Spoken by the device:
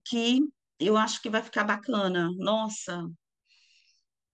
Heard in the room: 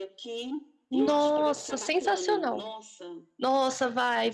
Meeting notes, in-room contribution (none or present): present